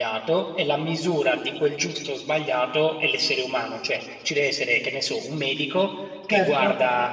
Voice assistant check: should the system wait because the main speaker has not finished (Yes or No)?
Yes